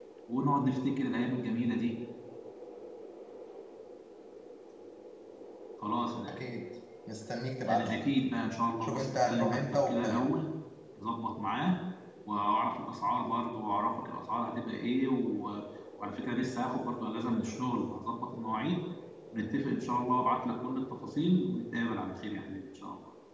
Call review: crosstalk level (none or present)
present